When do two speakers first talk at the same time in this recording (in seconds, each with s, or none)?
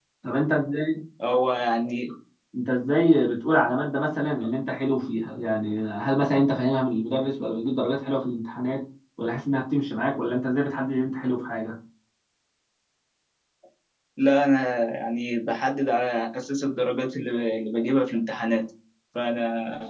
none